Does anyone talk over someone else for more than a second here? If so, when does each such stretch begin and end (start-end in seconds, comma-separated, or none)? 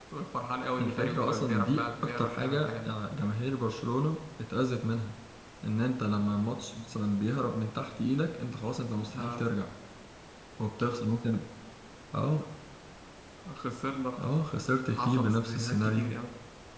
0.8-3.0, 14.9-16.1